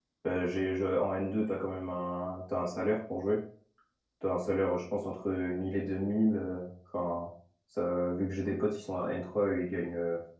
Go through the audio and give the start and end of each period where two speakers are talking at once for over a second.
none

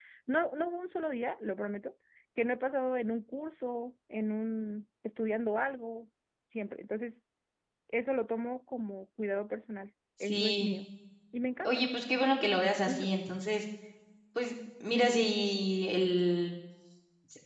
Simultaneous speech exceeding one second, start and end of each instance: none

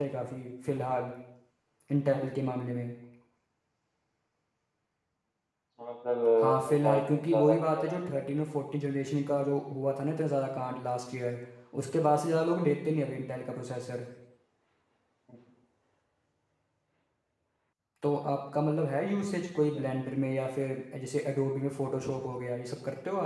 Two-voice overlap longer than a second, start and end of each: 6.4-8.2

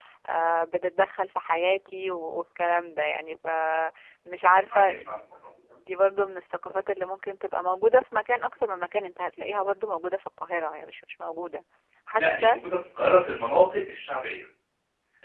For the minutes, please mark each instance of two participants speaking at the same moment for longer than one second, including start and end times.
none

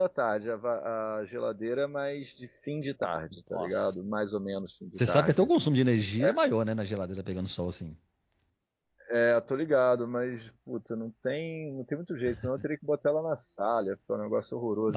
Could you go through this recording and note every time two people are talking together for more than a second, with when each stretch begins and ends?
none

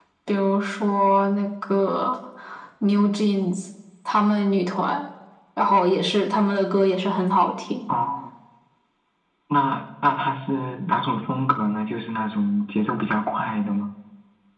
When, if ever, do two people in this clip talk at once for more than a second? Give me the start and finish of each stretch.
none

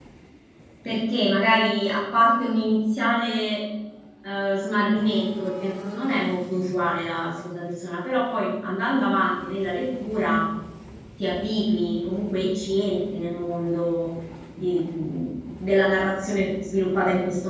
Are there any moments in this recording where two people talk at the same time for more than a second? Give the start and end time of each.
none

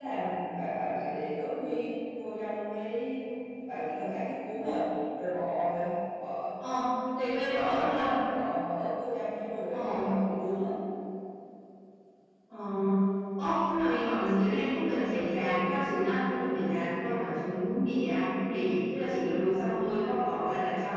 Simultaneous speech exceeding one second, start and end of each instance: none

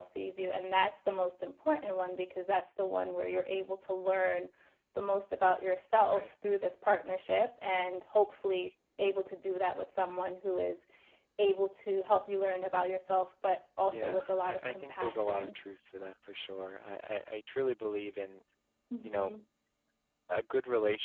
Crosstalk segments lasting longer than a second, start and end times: 13.9-15.6

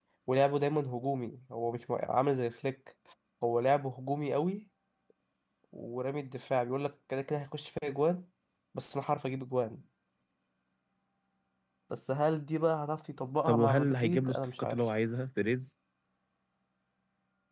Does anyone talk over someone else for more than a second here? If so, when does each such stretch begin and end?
13.5-14.8

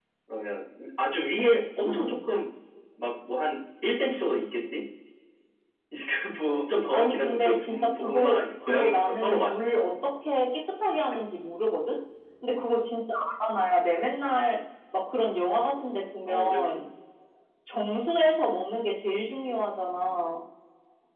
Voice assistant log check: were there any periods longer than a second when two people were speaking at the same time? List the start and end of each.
6.9-9.5

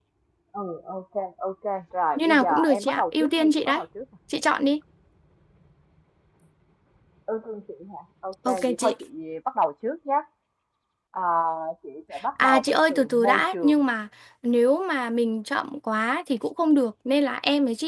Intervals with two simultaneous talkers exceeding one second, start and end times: 2.2-3.8, 12.4-13.8

